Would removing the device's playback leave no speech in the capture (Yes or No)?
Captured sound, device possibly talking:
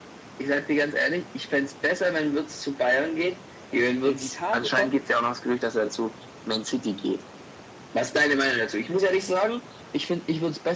No